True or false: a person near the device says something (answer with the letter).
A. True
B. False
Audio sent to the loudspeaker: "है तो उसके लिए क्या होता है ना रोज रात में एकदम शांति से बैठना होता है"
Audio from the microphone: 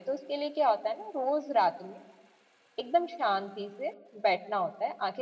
B